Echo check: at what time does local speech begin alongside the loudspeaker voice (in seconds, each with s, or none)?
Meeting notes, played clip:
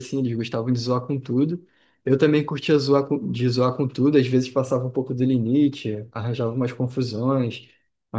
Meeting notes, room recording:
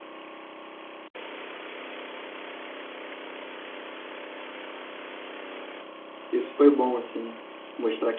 6.3 s